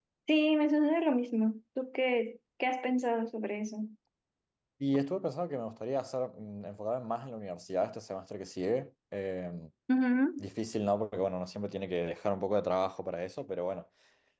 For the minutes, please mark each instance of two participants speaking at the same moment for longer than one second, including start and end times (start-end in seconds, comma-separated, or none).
none